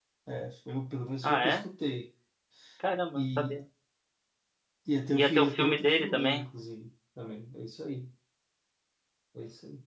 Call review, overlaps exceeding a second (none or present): present